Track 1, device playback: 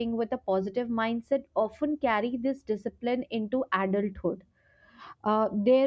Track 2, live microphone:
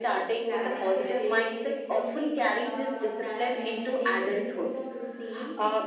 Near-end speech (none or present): present